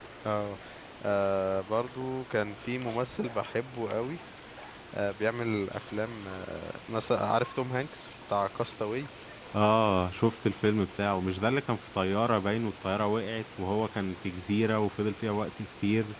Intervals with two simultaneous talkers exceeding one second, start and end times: none

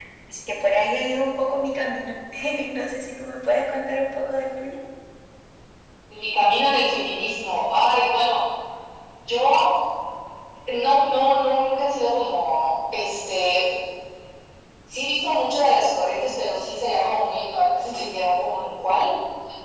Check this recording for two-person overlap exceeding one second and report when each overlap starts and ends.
none

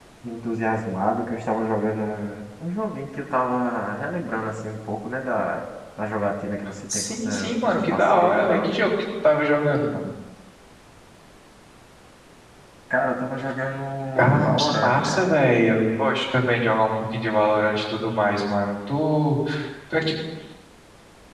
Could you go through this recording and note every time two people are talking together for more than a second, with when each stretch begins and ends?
6.9-8.7, 14.2-15.4

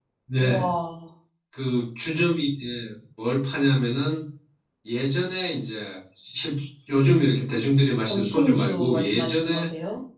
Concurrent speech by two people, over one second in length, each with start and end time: 8.1-9.7

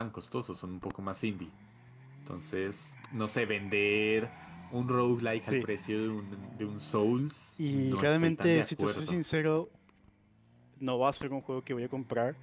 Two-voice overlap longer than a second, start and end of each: 7.7-9.2

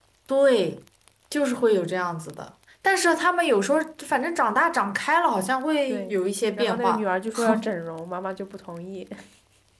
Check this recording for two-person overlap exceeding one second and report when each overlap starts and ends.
none

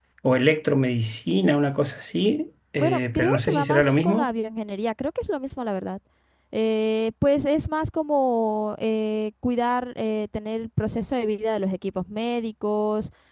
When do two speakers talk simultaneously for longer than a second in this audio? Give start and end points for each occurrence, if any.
2.8-4.3

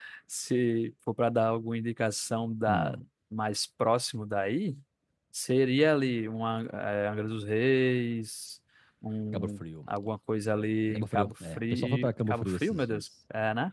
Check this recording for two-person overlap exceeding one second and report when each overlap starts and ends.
10.9-13.0

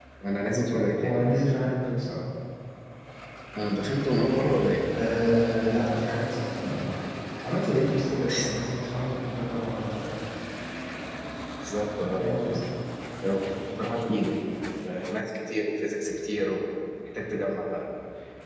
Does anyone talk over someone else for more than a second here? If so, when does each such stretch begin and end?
none

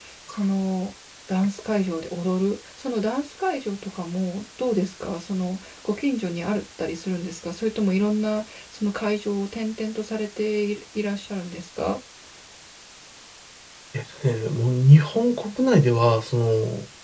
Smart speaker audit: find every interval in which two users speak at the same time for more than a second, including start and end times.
none

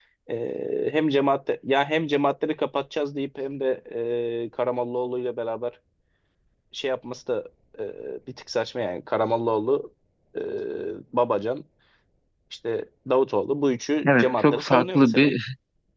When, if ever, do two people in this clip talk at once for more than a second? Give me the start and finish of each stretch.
14.1-15.3

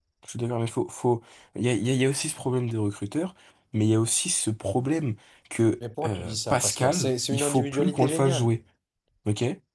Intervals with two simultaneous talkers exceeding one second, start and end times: 6.0-8.5

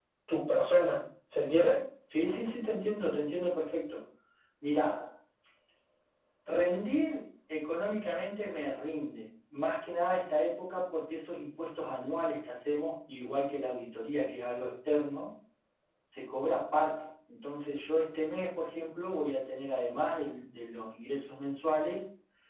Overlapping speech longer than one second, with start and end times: none

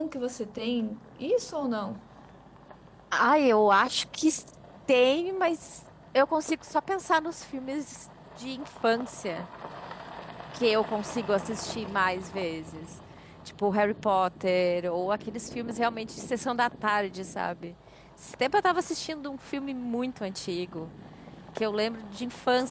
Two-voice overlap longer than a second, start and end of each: none

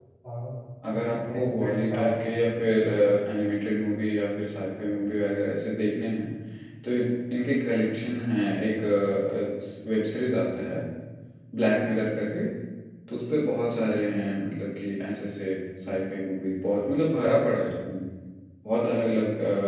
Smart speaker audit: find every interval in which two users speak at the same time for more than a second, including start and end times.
0.9-2.5

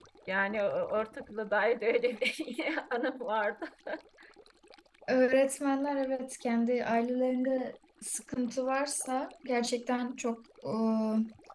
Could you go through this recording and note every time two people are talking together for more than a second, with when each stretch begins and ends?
none

